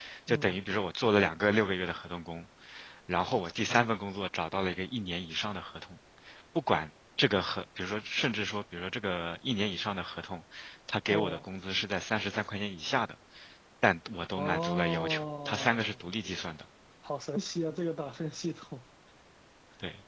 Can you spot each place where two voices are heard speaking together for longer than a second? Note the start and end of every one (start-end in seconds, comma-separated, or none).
14.4-16.1